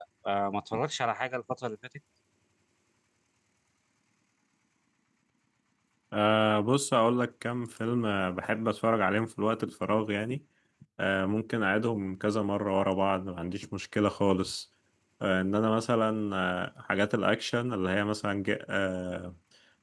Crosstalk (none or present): none